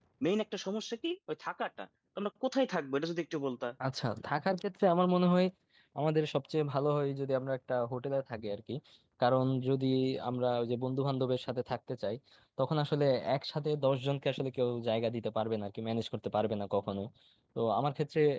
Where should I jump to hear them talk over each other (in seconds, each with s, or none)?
none